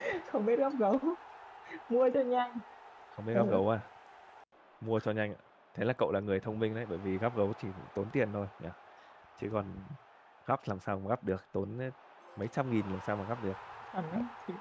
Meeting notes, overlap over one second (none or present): none